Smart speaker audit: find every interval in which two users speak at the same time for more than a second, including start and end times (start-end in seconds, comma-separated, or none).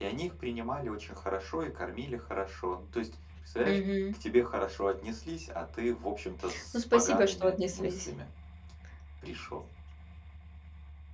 6.7-8.1